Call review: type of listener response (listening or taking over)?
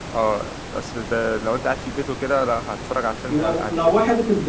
taking over